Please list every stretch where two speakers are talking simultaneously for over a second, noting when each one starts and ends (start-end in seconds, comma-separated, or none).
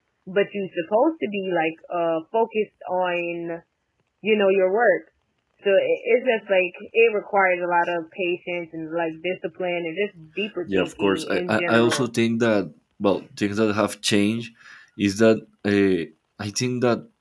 10.7-12.1